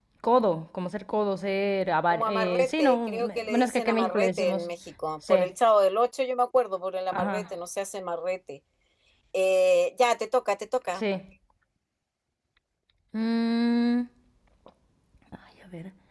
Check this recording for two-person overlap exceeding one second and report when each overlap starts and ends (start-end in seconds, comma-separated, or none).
2.1-4.7